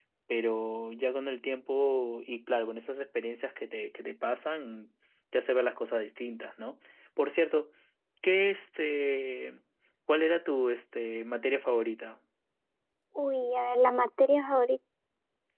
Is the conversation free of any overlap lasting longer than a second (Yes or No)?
Yes